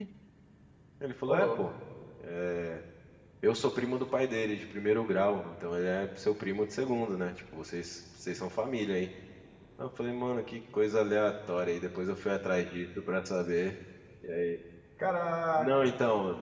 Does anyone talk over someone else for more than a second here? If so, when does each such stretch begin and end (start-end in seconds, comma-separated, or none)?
none